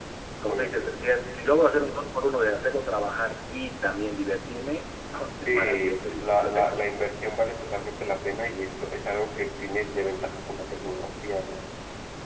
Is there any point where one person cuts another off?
Yes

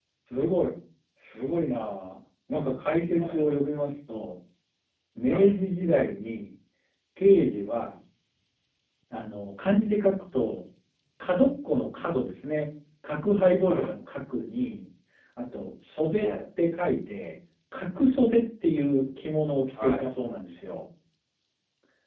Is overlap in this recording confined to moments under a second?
Yes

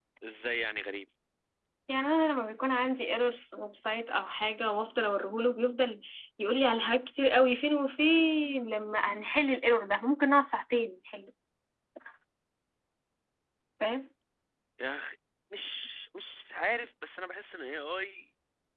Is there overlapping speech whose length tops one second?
No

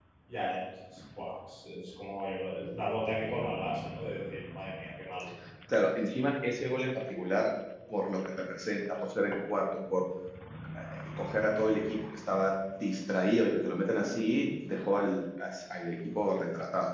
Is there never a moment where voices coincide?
Yes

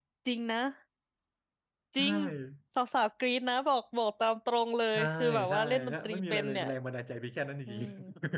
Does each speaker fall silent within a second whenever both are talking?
No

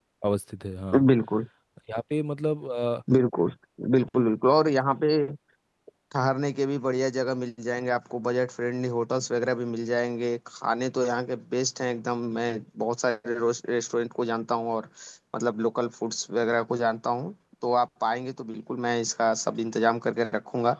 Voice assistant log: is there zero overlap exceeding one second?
Yes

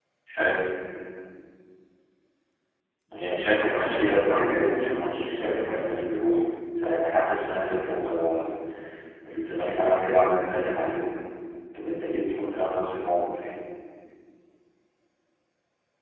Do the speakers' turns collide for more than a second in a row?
Yes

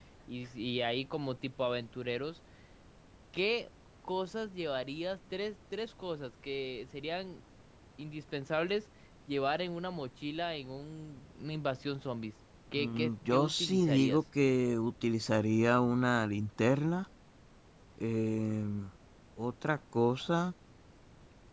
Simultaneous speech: Yes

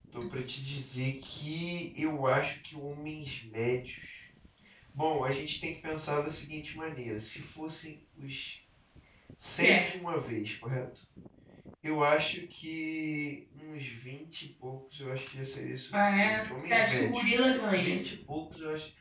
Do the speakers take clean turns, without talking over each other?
No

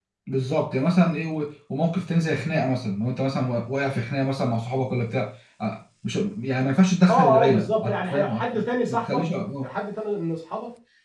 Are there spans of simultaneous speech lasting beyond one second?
Yes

